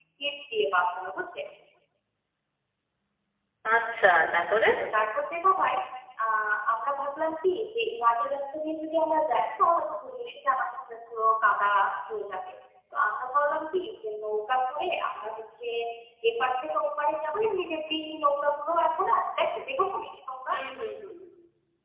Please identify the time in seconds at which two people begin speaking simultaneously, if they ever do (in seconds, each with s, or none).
none